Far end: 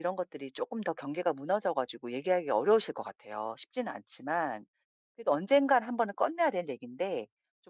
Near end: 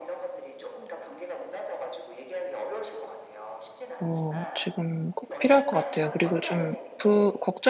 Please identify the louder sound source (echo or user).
user